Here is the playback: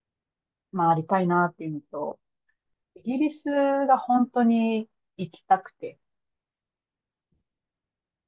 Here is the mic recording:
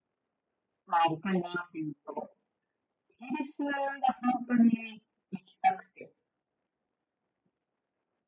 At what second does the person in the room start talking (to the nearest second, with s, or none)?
none